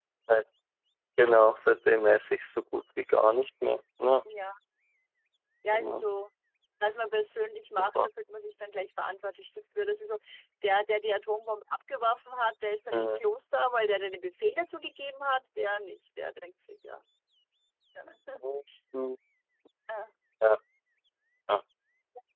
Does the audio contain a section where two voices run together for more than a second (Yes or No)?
No